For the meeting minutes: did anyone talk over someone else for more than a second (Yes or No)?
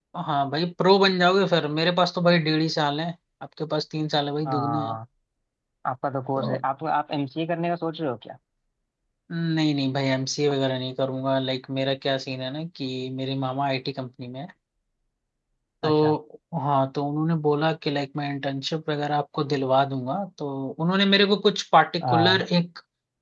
No